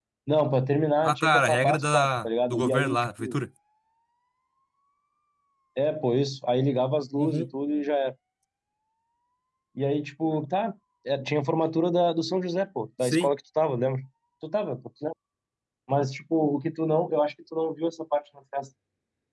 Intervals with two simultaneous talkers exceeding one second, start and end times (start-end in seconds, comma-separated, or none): 1.0-3.4